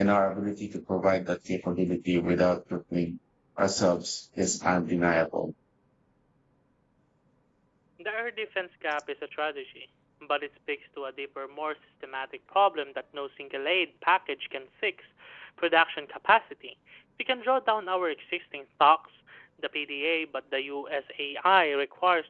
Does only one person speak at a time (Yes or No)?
Yes